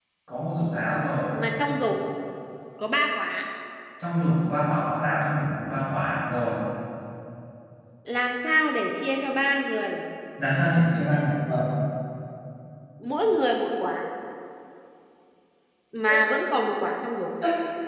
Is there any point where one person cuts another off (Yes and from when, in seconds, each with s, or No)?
No